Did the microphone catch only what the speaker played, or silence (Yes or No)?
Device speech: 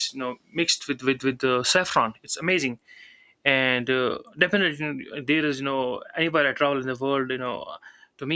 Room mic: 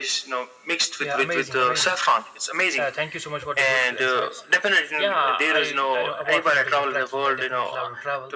No